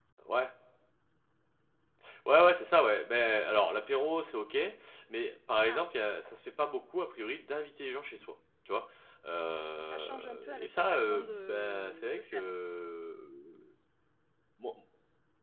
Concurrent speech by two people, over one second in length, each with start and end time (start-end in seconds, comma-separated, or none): 9.8-12.4